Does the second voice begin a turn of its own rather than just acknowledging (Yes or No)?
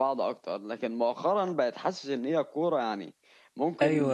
No